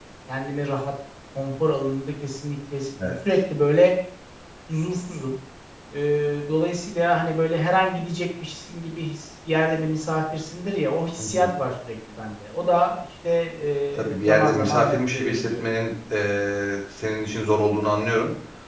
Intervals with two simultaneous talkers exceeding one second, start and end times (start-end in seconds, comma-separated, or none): 14.0-15.6